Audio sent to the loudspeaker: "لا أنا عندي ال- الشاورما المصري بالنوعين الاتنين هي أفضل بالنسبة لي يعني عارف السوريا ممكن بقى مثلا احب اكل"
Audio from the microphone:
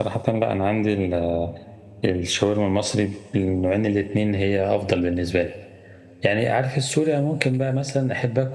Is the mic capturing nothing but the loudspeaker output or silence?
Yes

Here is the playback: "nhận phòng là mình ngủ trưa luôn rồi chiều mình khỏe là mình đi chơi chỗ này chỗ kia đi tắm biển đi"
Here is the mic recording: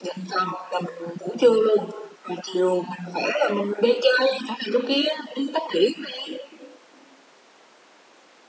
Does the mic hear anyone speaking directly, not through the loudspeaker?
No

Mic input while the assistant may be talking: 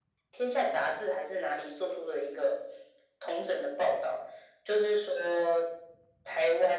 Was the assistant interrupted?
No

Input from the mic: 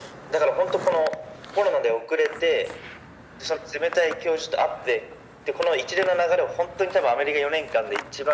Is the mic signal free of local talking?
Yes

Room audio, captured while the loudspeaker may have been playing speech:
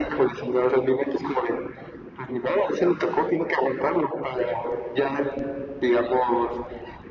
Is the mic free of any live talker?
Yes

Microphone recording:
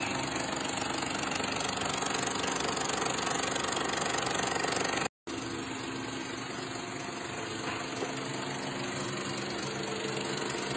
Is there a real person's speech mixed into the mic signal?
No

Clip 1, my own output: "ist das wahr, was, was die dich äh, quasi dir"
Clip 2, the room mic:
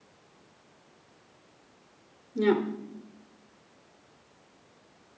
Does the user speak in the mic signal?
Yes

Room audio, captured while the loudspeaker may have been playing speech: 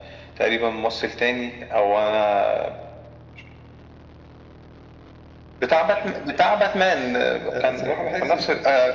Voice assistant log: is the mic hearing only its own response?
No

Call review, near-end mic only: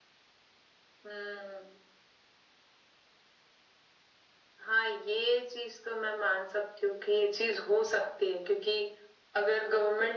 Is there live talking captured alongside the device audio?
No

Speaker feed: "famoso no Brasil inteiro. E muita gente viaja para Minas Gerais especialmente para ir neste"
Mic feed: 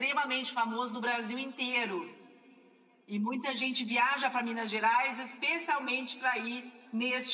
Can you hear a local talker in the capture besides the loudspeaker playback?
No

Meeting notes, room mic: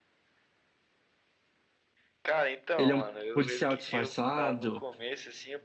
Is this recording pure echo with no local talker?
No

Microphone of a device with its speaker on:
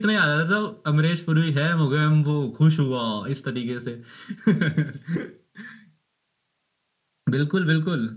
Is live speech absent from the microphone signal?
Yes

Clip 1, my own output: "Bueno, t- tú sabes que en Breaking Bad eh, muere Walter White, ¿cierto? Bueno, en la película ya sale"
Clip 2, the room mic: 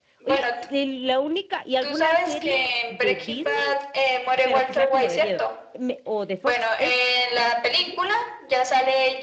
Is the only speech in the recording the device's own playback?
No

